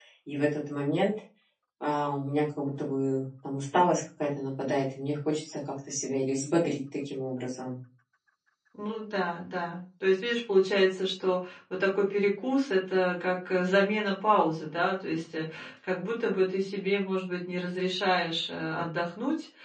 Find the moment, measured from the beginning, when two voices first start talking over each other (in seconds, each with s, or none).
none